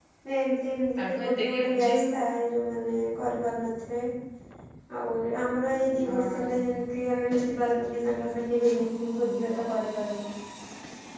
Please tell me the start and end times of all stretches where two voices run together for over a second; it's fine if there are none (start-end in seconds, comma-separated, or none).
1.0-2.2